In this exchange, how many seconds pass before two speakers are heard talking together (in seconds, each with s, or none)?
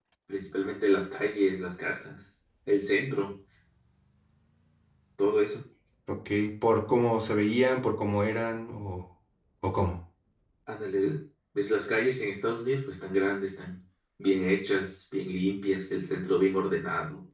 none